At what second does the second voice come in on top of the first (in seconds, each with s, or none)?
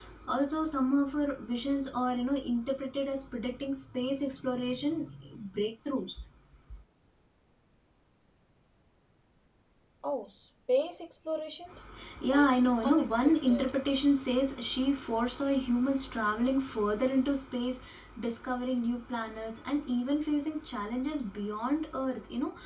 12.3 s